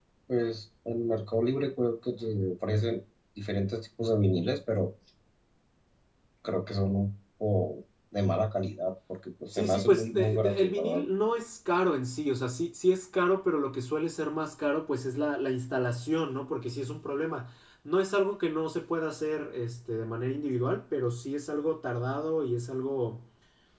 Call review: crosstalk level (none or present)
present